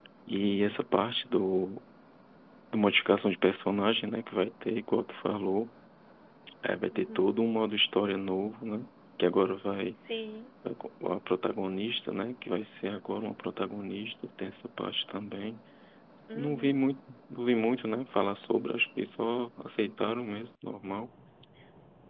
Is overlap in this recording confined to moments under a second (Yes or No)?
Yes